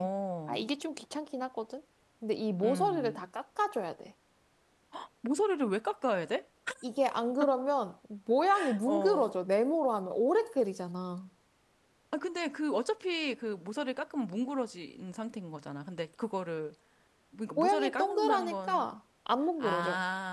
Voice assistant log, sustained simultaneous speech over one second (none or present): present